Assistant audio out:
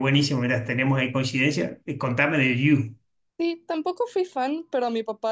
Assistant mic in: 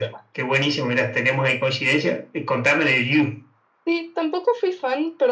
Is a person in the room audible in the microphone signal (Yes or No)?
No